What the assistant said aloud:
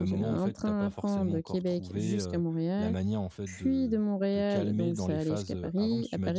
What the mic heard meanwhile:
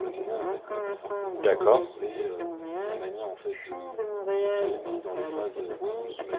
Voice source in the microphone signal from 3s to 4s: echo only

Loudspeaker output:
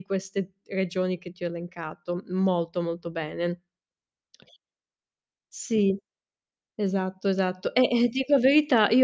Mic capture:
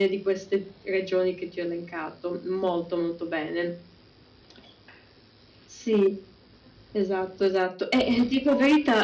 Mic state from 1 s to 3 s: echo only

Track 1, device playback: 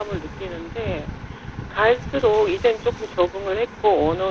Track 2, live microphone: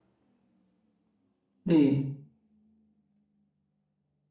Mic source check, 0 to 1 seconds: neither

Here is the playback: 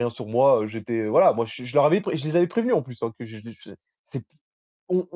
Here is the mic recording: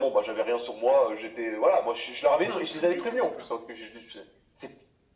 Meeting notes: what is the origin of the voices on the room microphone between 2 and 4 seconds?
both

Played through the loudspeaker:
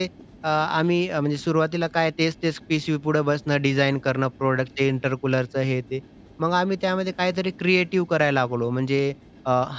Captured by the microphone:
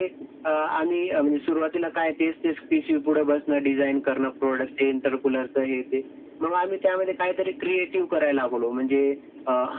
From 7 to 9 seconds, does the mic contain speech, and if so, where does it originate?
echo only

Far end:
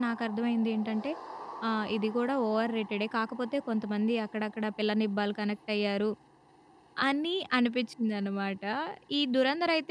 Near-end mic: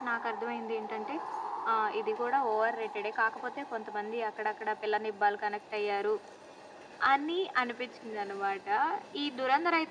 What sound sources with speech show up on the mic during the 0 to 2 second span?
echo only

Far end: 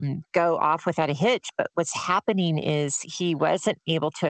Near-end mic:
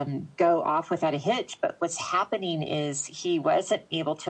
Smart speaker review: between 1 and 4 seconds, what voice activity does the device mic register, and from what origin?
echo only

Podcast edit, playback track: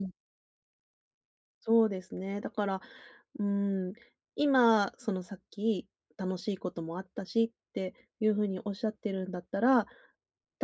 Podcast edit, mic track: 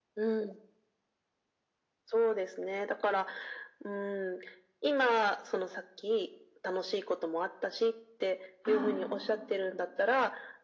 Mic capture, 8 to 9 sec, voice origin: both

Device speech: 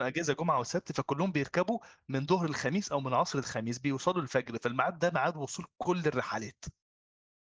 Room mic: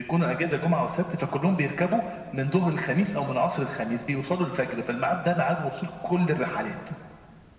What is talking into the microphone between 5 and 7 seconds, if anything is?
echo only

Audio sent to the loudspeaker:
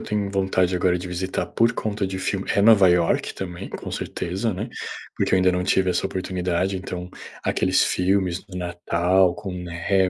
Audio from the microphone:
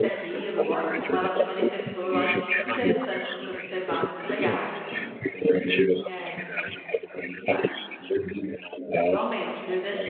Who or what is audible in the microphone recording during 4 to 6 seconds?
both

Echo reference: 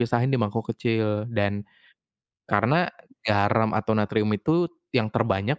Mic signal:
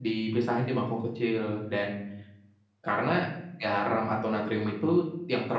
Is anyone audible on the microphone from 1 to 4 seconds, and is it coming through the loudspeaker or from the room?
echo only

